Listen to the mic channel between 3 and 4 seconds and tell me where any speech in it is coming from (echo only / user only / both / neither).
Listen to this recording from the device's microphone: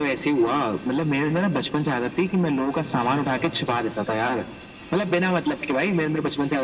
both